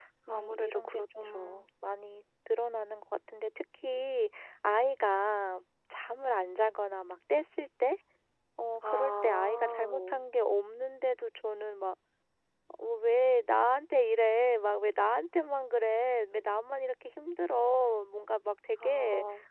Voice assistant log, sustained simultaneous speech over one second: present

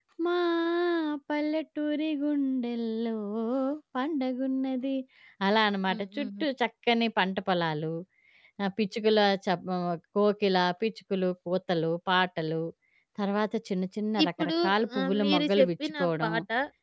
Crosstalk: present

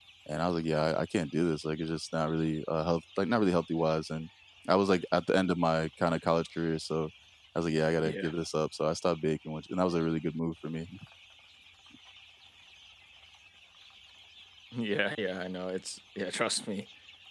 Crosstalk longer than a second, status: none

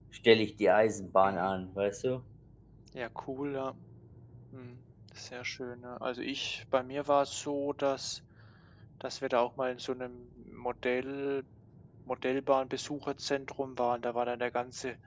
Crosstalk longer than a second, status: none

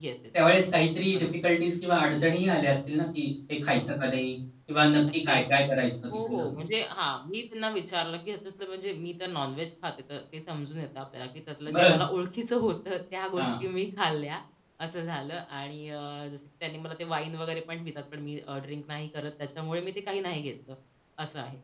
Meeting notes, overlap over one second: none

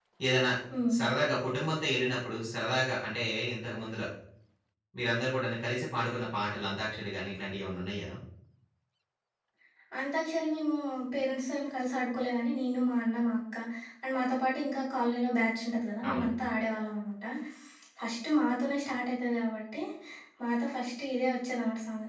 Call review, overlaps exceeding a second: none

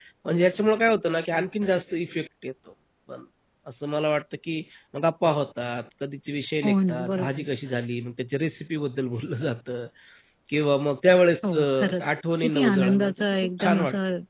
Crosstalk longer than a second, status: present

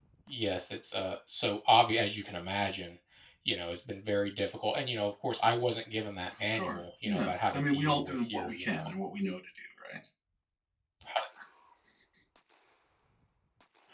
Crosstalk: present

